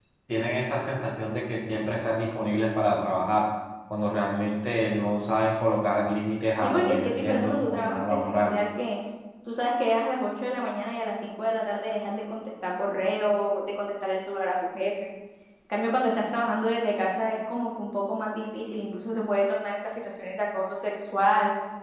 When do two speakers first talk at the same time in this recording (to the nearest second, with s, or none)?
7 s